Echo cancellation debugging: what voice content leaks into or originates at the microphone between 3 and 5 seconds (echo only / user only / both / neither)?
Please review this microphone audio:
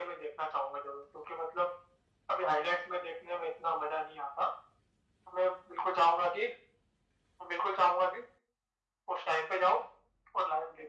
echo only